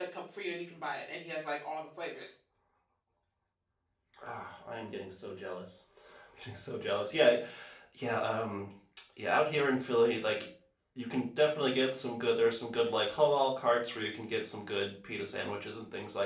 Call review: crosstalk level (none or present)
none